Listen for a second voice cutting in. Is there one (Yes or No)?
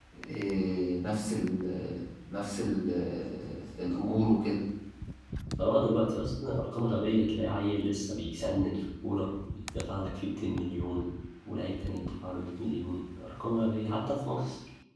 No